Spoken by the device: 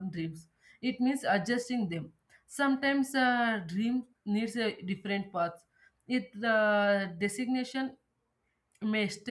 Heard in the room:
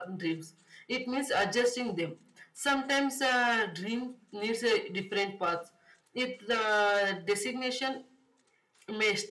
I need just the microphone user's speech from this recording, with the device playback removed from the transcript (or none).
none